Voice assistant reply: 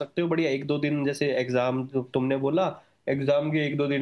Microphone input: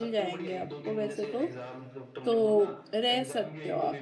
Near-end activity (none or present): present